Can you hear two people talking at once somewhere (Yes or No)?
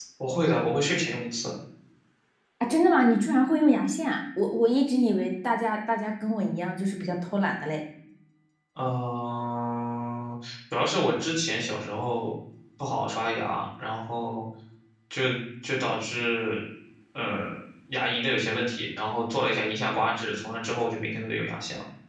No